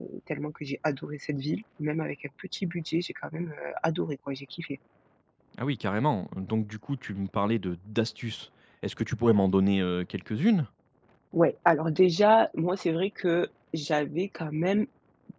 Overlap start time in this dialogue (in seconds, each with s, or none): none